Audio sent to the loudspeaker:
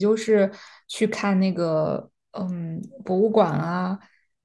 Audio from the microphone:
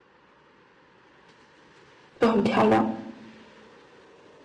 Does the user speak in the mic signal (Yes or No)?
Yes